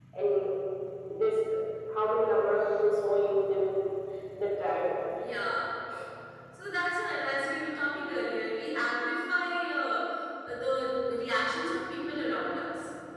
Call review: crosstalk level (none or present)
none